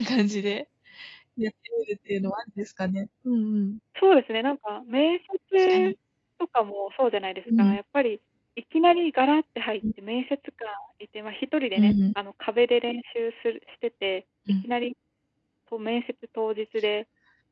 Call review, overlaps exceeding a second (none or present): none